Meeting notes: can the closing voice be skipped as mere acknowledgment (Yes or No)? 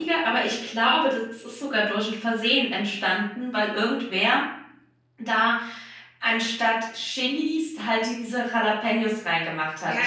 No